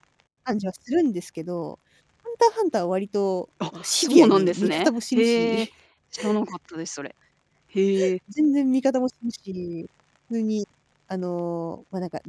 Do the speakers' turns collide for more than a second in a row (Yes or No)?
Yes